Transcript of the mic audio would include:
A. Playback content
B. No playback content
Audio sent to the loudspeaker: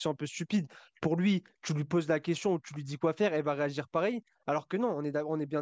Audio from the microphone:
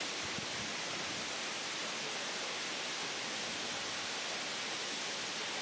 B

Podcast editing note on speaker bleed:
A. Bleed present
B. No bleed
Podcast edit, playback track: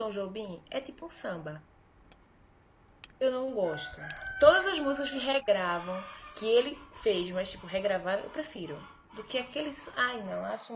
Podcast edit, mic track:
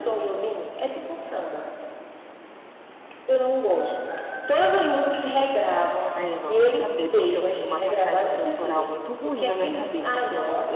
A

